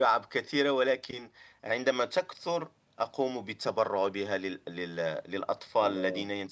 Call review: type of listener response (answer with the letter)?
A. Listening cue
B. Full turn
A